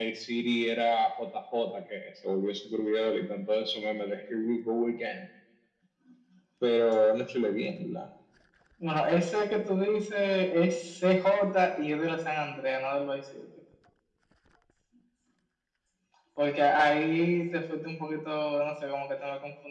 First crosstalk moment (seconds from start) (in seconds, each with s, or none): none